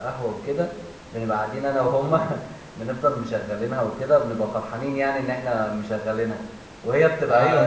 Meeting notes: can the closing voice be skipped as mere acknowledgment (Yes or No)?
No